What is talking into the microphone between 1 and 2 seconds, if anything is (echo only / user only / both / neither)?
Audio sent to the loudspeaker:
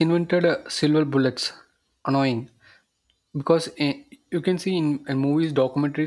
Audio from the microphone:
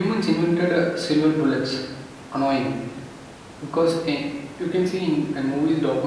echo only